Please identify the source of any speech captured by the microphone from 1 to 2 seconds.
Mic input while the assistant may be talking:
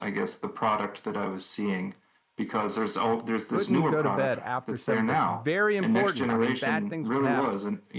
echo only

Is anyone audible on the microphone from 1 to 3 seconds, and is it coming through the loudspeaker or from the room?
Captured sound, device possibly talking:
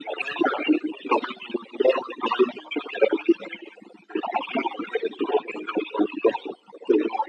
echo only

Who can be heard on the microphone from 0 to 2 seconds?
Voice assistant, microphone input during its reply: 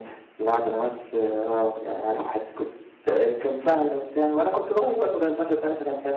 echo only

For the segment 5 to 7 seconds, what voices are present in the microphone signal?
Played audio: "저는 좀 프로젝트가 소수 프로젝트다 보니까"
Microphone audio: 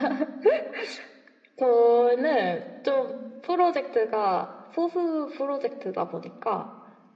echo only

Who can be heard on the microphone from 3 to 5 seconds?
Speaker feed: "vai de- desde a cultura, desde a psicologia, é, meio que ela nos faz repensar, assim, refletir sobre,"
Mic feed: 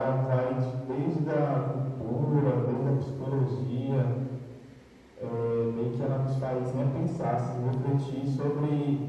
echo only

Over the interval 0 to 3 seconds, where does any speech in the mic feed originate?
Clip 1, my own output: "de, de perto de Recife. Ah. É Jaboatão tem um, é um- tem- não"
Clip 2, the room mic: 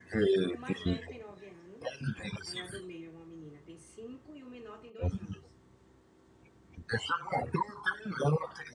both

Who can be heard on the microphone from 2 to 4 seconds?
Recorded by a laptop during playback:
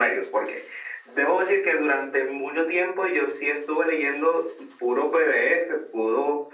echo only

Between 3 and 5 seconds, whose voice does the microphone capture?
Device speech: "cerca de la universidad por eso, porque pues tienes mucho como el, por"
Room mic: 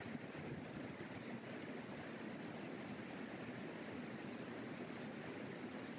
neither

